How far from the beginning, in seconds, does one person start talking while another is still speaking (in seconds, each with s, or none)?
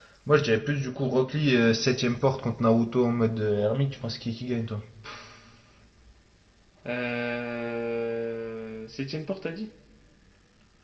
none